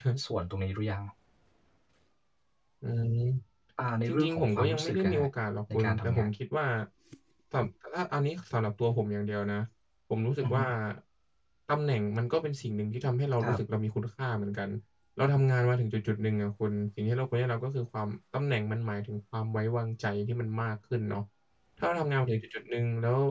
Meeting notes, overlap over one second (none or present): present